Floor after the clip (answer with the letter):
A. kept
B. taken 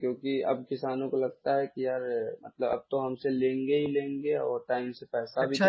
B